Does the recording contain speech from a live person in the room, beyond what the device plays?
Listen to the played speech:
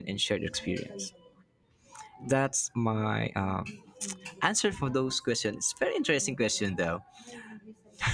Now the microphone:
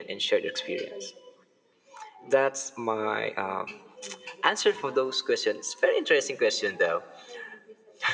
No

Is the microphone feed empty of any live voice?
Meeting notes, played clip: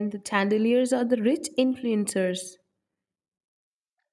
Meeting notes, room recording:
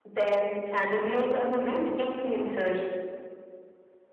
Yes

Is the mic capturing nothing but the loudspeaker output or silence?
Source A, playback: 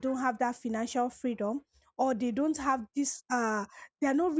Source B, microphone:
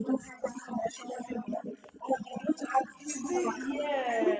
No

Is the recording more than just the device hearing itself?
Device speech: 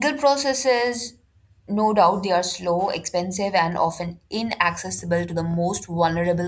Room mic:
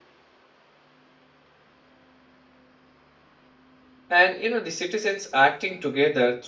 Yes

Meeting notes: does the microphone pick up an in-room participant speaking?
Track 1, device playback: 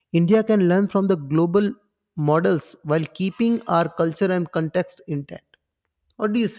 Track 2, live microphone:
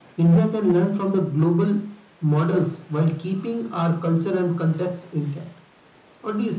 No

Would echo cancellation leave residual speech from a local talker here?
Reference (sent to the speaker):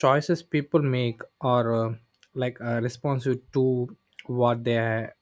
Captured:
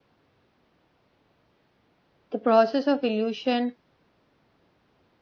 Yes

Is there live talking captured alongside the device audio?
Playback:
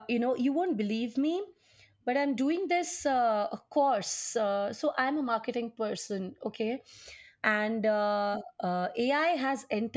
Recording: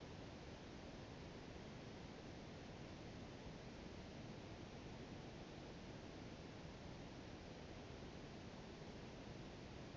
No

